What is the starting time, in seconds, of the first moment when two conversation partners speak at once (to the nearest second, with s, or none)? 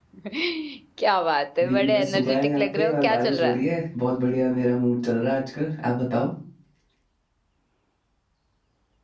2 s